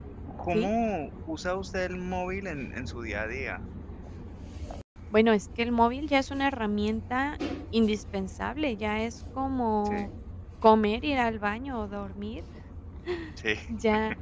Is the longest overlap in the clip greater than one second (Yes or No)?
No